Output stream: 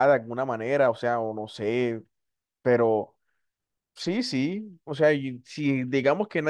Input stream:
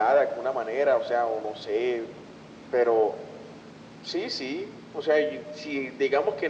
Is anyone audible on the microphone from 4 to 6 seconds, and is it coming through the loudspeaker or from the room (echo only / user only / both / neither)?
echo only